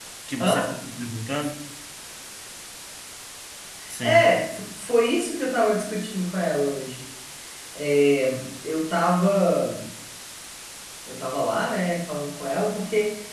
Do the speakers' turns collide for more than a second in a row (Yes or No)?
No